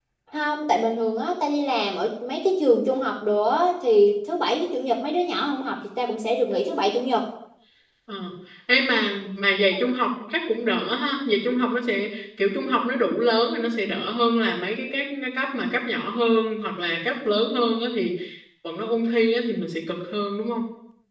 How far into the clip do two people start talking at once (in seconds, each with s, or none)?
none